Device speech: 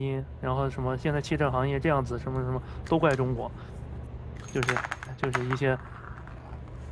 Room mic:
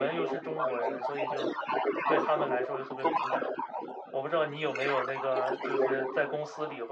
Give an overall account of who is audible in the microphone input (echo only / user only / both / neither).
both